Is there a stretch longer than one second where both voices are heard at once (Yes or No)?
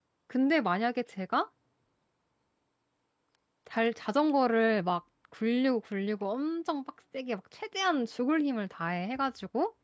No